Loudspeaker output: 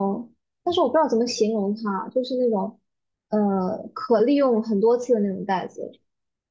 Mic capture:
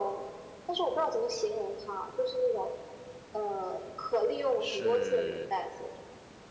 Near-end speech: present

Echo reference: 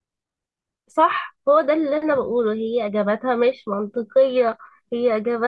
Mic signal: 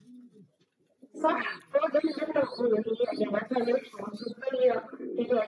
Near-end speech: none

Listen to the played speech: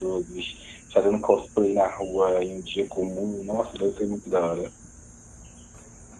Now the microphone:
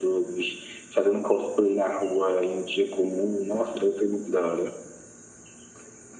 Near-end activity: none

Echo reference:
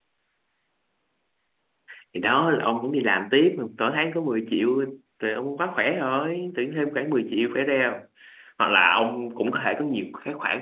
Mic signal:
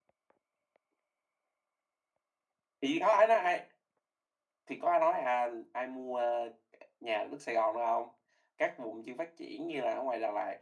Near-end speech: present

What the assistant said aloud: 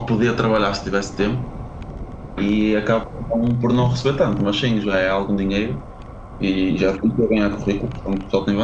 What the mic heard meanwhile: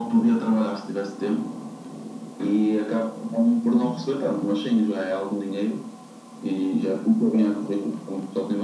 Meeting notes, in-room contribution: none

